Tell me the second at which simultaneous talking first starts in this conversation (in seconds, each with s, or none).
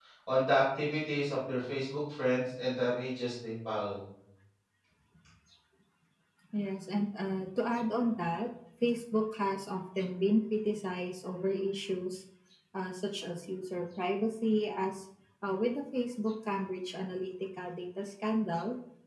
none